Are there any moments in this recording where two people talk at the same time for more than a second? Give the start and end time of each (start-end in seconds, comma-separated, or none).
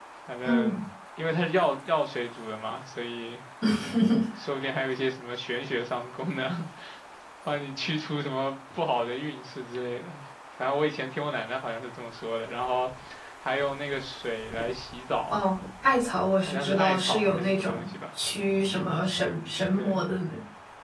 16.5-17.9